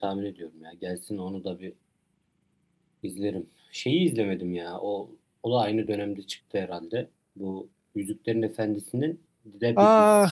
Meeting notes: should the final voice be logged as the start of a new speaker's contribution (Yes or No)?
Yes